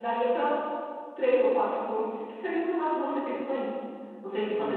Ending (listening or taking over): listening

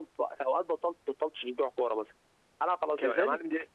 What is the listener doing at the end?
taking over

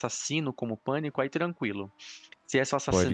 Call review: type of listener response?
listening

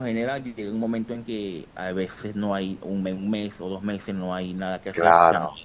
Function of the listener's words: taking over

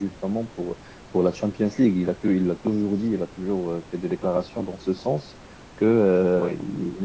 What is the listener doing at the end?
listening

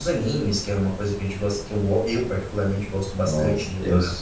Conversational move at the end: taking over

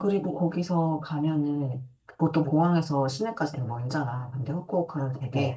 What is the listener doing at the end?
listening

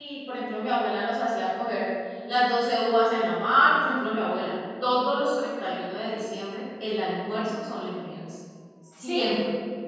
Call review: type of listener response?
listening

